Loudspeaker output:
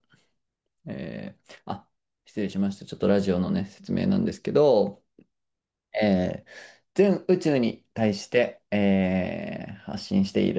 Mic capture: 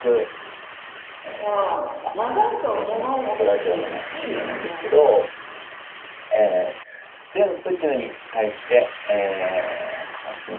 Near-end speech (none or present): present